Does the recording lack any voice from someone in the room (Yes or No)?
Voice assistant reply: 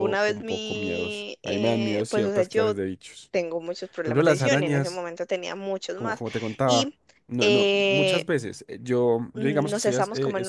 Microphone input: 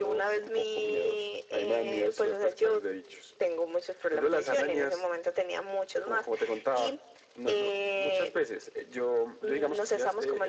Yes